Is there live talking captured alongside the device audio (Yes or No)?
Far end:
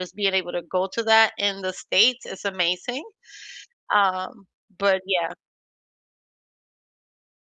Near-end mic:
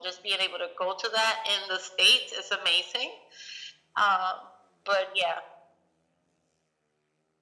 No